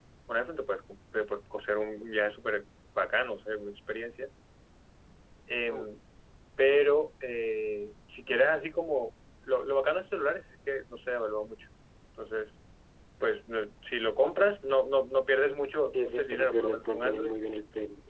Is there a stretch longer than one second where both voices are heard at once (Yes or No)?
Yes